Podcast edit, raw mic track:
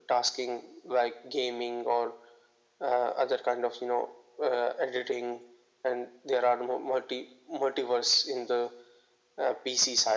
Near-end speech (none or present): none